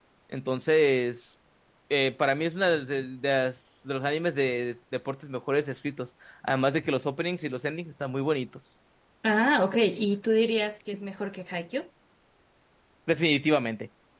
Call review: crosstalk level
none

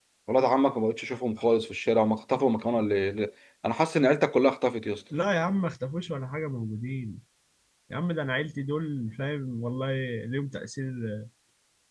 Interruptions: none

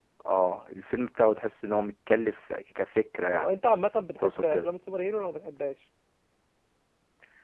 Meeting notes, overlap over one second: none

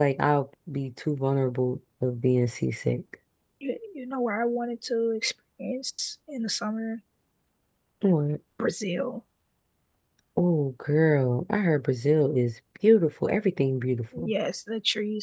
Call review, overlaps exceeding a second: none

